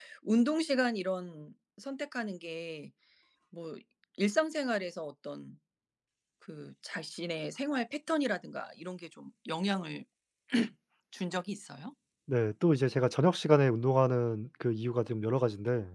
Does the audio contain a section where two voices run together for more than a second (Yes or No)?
No